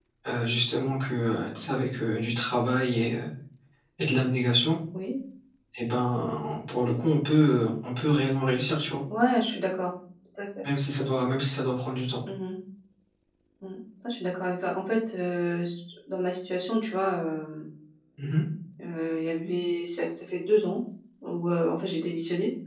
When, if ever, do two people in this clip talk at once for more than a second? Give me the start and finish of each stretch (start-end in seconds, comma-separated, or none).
none